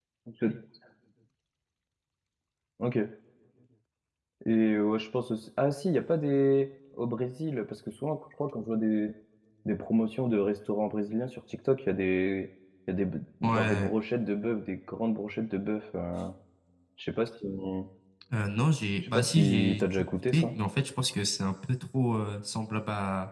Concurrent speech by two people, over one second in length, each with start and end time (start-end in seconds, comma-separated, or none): 19.0-20.5